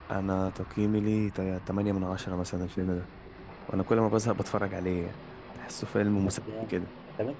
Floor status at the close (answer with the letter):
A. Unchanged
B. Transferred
B